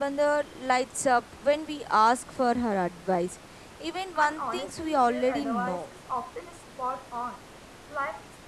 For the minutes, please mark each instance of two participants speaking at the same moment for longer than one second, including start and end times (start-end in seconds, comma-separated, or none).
4.2-5.9